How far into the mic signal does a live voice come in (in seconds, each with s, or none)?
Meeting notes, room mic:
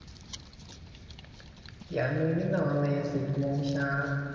2.0 s